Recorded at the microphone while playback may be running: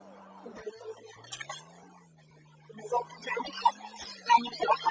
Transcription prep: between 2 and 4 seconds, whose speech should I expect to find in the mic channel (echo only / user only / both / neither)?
echo only